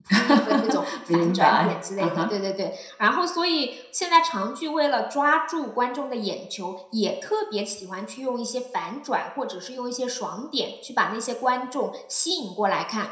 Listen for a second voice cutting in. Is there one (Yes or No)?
Yes